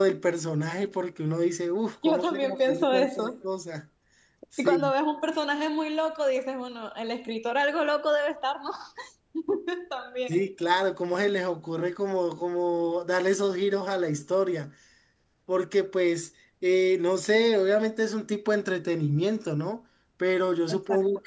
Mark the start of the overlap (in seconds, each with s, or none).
2.0 s